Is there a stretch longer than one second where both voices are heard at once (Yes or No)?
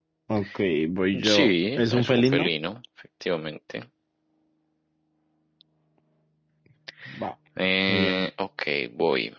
Yes